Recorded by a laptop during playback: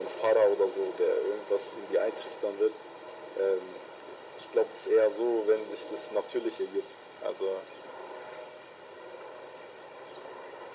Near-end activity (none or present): none